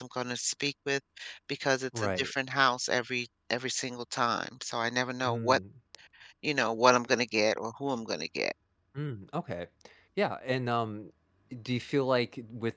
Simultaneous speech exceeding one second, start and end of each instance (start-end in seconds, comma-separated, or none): none